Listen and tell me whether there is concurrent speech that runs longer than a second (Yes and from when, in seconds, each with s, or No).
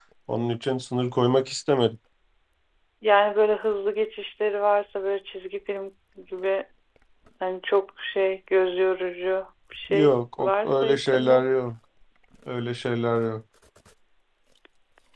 Yes, from 9.9 s